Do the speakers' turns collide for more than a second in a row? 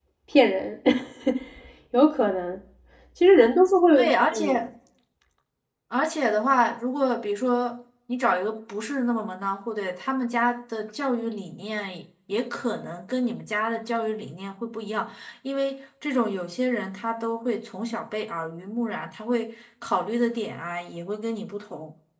No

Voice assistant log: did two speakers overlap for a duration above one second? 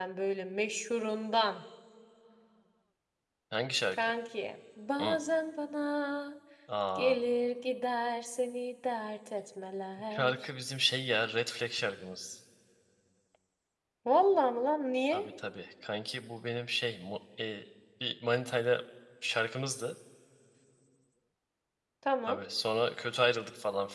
No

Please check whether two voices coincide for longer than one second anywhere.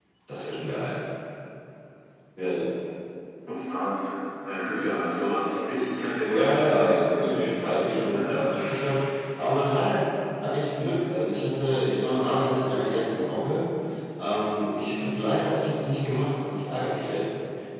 Yes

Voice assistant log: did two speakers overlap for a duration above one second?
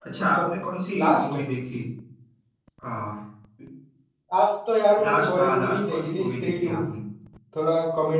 Yes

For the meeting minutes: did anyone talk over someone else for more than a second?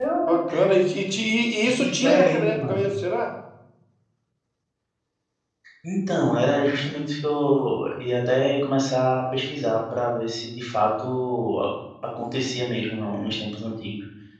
Yes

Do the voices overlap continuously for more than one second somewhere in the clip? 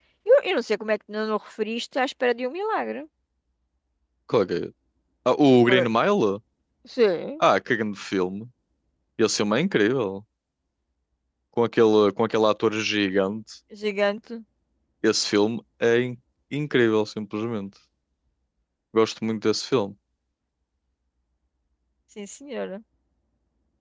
No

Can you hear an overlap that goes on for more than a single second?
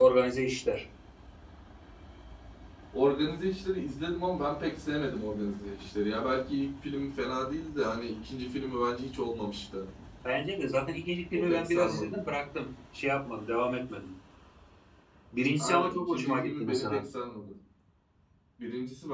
Yes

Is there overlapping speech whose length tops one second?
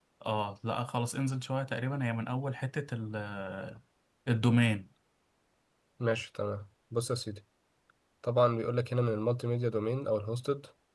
No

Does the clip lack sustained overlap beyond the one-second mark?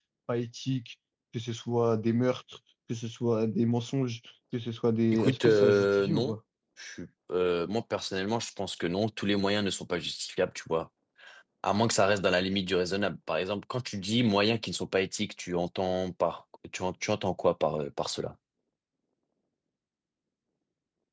No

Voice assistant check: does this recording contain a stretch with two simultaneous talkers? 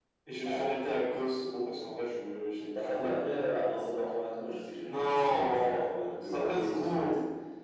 Yes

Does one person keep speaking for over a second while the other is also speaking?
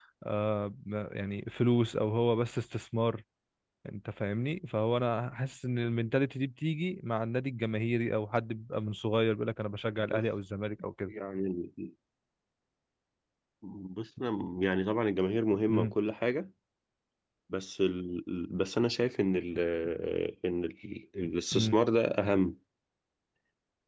No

